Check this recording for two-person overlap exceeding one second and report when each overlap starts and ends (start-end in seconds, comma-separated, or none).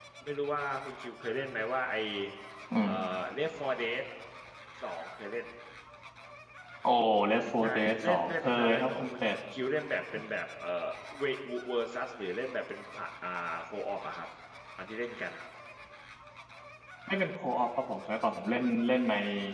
7.6-9.3